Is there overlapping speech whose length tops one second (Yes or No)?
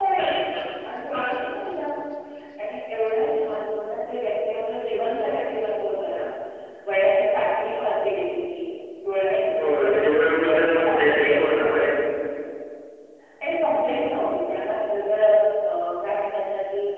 Yes